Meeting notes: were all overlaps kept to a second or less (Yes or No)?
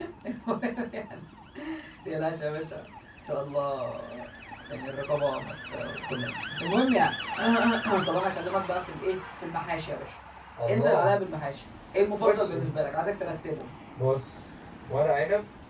Yes